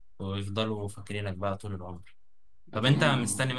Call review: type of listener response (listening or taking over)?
listening